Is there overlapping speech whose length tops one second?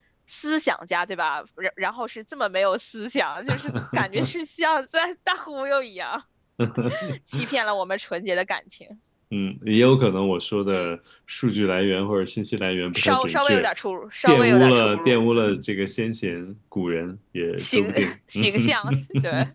Yes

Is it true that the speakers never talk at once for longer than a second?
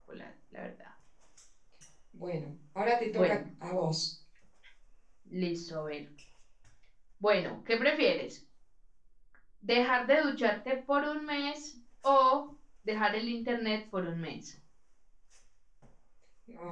Yes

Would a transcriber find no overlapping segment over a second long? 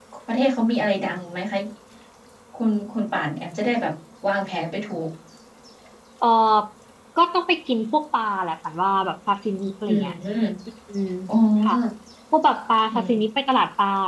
Yes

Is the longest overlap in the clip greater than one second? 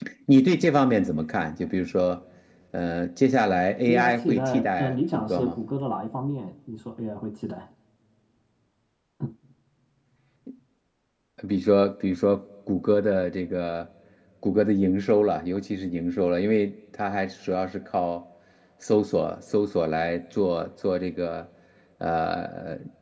Yes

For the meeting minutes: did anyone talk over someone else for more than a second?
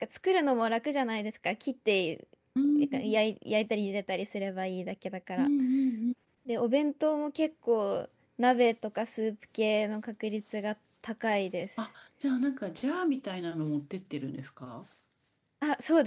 No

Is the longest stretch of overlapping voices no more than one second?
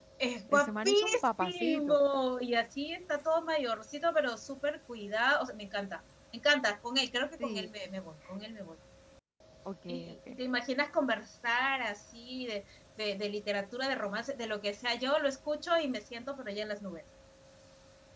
No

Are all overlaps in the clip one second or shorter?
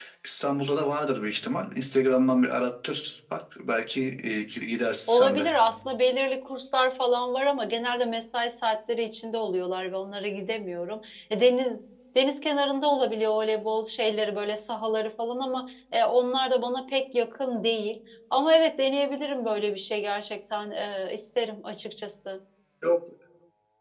Yes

